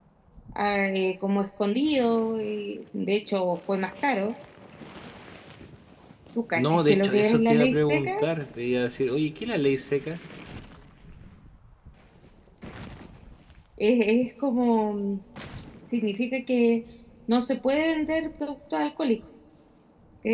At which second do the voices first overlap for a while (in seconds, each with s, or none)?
6.5 s